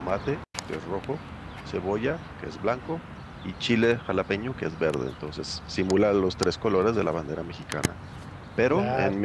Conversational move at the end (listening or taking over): listening